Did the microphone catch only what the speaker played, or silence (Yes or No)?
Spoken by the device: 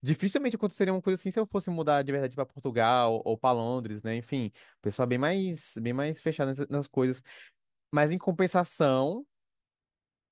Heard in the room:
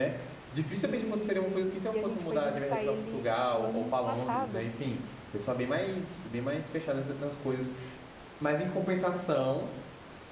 No